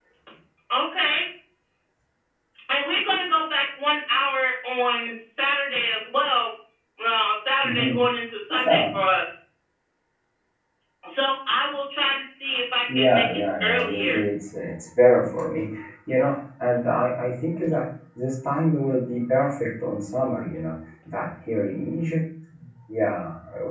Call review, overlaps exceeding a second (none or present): present